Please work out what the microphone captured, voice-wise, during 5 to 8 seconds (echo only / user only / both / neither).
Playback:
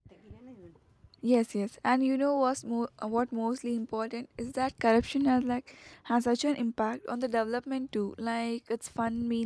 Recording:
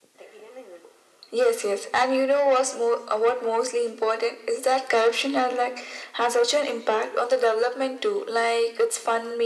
echo only